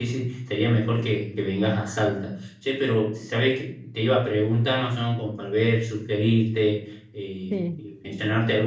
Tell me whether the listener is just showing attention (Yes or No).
Yes